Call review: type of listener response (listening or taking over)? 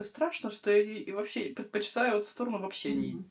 taking over